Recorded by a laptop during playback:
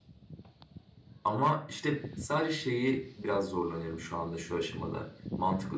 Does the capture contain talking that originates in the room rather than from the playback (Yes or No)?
Yes